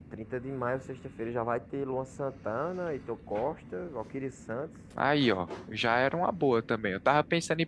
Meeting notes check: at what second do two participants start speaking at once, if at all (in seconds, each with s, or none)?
none